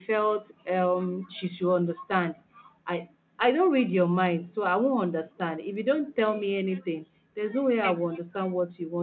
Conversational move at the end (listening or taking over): listening